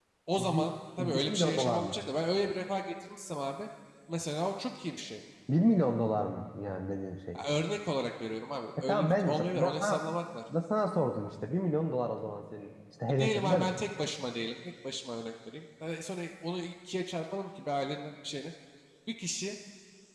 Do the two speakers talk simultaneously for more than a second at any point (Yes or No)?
Yes